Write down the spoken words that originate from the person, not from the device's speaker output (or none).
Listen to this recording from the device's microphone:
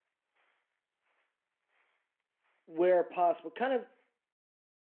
where possible, kind of